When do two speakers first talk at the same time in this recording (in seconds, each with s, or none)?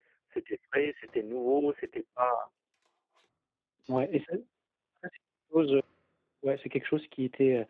none